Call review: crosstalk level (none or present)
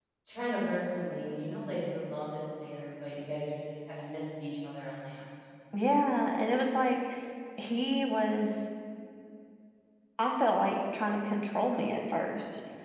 none